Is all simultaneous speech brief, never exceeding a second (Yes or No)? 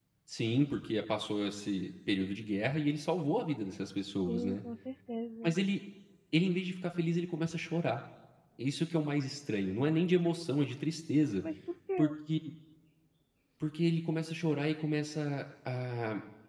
Yes